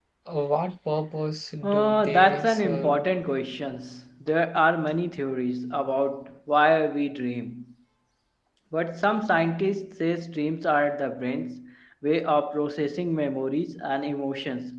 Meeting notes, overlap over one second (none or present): present